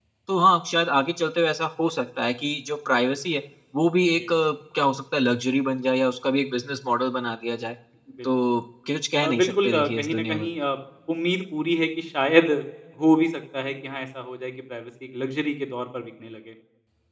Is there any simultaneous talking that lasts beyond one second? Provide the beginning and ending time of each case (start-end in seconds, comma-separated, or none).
9.2-10.5